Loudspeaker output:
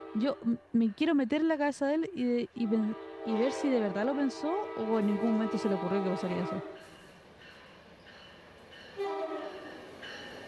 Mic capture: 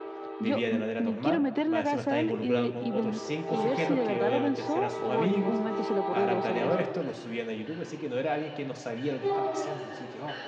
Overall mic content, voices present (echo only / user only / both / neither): both